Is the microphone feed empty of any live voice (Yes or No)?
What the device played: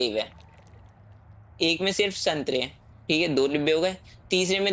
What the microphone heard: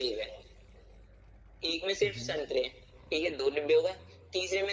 No